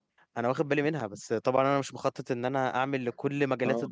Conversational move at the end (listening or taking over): listening